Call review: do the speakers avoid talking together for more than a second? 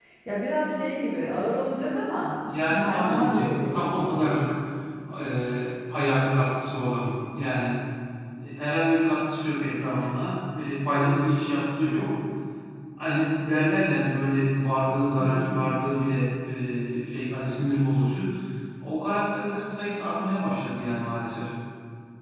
No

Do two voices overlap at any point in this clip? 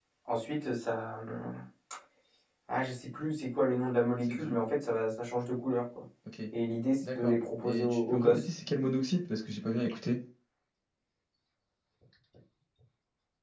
Yes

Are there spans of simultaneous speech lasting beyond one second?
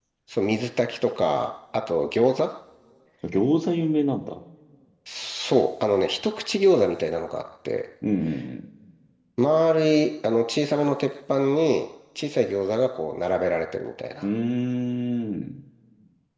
No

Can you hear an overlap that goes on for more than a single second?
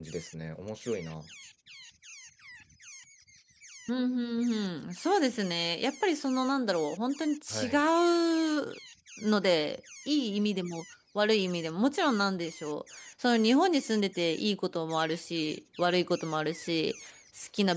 No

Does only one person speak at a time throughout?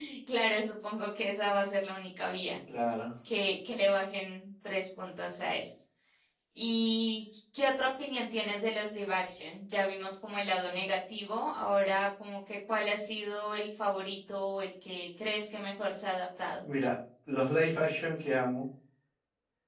Yes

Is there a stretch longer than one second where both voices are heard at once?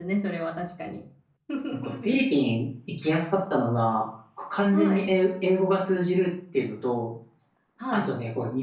No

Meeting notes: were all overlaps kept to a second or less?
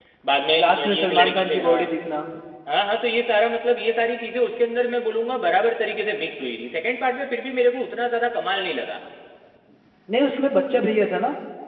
No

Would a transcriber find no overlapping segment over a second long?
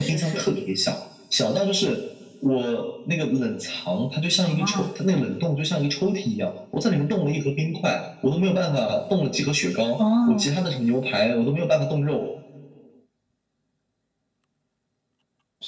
Yes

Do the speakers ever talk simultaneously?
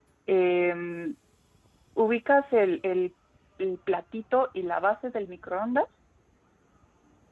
No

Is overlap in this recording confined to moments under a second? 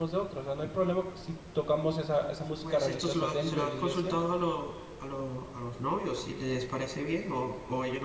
No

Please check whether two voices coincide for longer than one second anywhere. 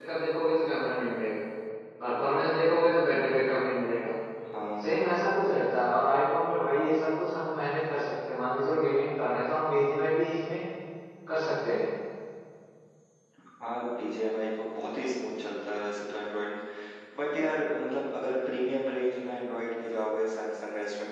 No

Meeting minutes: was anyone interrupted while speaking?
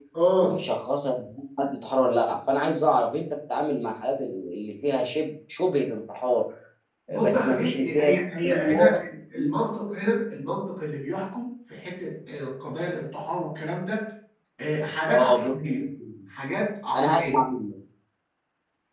Yes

